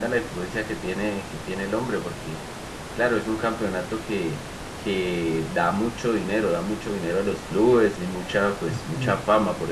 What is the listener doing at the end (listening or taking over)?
listening